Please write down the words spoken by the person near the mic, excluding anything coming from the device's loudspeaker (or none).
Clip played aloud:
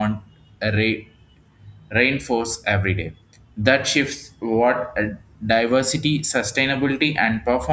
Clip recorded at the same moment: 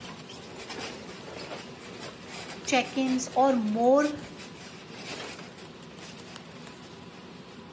check-ins or more